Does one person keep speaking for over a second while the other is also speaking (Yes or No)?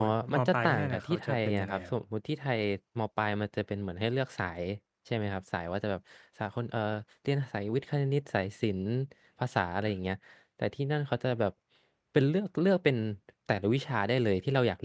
Yes